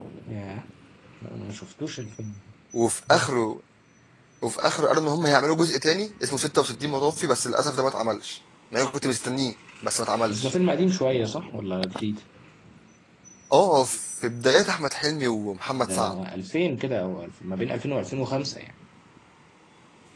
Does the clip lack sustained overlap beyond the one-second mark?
Yes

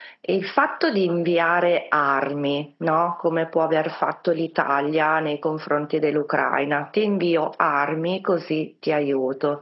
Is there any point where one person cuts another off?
No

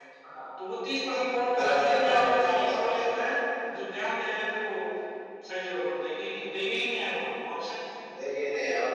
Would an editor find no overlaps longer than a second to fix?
No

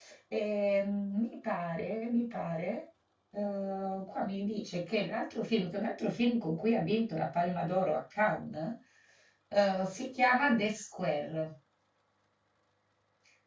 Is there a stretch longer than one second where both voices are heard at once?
No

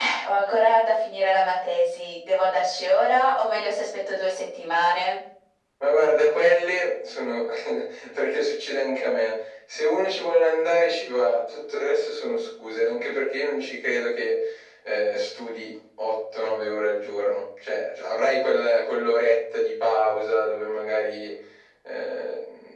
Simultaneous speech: No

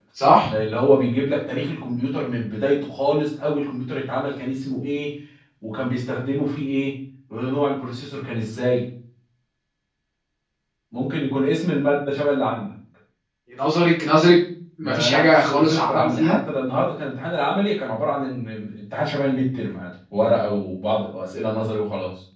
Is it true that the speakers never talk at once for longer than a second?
No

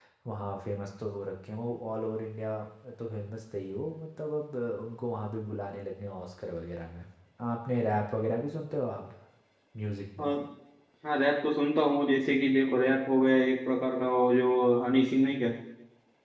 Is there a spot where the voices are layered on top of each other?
No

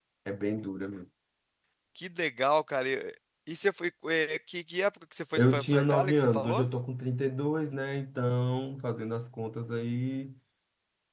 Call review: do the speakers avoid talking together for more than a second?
No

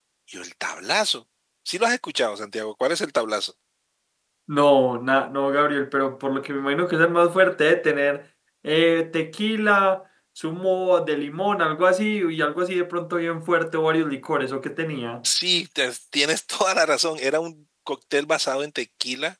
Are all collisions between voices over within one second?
Yes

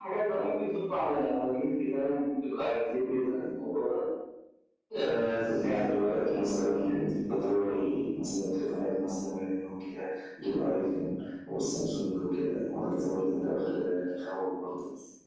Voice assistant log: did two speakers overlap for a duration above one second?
Yes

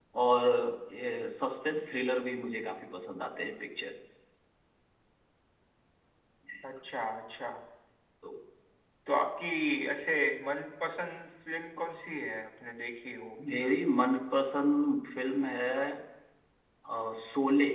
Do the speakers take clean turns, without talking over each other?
Yes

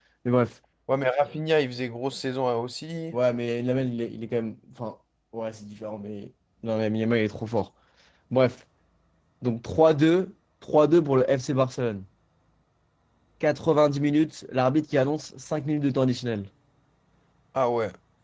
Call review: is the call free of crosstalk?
Yes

